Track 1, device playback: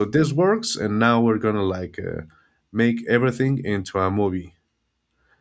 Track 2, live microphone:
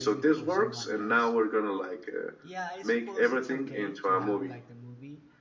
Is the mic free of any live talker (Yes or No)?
No